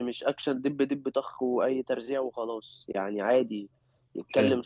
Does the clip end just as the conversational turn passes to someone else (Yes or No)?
No